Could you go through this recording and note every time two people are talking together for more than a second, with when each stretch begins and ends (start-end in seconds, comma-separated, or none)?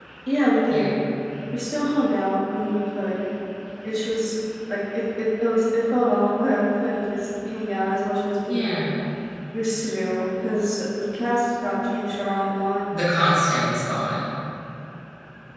none